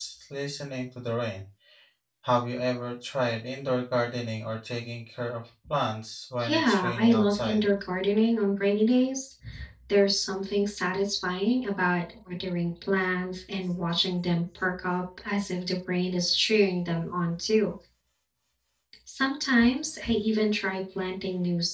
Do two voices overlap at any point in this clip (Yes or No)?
Yes